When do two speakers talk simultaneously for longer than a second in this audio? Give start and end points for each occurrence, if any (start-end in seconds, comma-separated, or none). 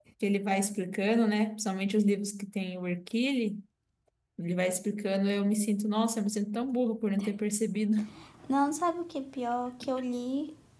none